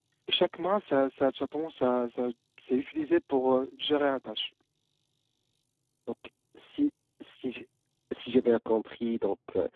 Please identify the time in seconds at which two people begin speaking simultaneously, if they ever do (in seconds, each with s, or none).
none